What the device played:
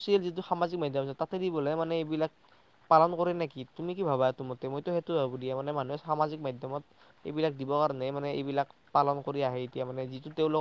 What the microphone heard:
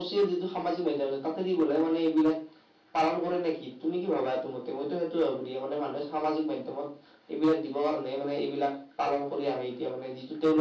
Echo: present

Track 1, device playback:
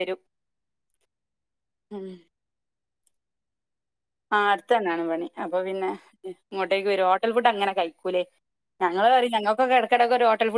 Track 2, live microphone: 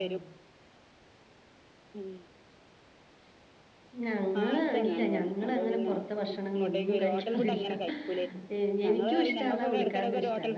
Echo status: present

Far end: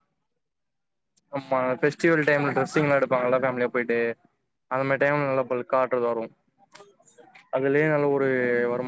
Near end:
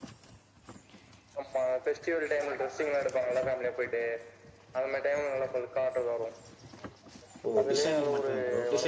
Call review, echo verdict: present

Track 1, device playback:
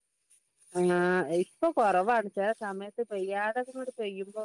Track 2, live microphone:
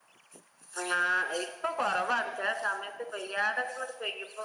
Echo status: present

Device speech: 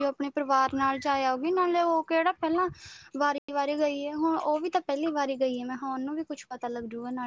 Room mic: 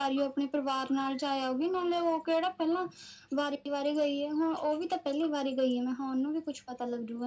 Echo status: present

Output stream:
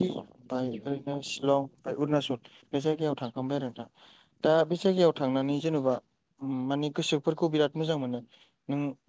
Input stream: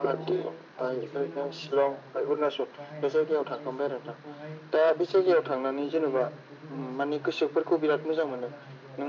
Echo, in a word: present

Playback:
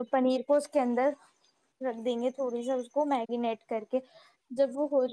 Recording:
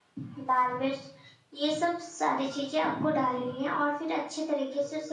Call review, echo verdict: none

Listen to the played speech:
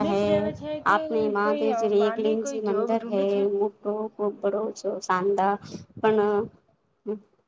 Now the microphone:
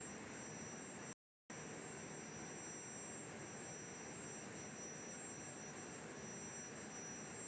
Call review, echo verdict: none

